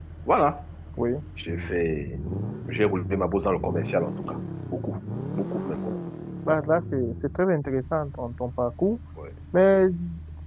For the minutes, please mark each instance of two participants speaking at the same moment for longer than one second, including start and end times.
none

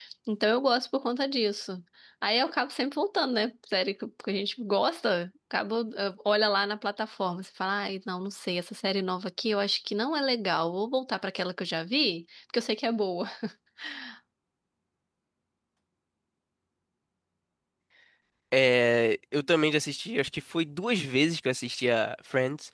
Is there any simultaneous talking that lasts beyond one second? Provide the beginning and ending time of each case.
none

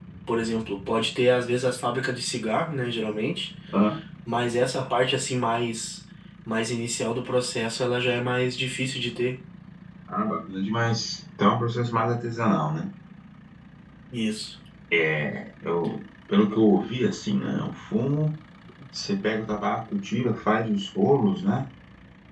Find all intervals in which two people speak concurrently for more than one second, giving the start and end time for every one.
none

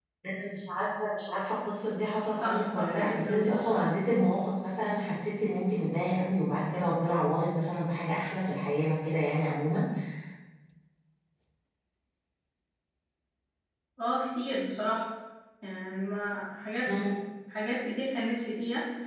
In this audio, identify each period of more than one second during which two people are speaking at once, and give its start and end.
2.4-3.6

